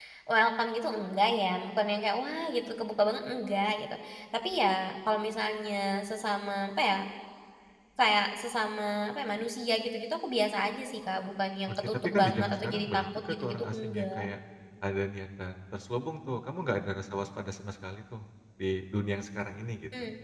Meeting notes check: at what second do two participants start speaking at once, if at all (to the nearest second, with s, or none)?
12 s